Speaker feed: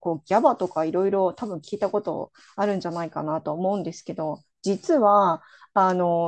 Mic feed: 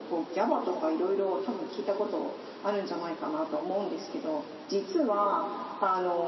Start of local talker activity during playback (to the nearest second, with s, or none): none